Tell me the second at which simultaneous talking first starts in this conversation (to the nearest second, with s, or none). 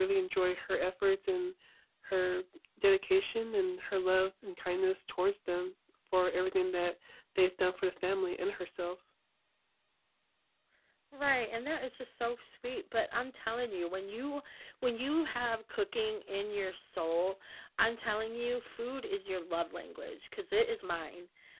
none